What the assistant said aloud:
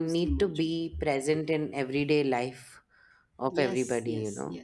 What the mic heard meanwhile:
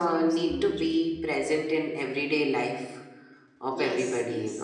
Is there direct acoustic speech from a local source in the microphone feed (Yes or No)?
No